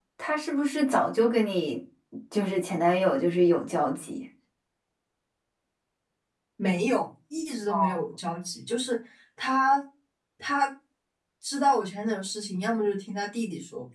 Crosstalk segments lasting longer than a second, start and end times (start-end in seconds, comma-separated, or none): none